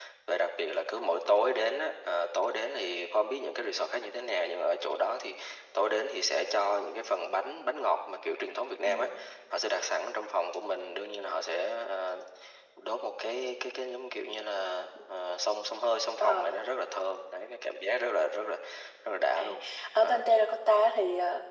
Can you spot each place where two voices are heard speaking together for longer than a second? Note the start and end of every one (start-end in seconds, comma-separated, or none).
none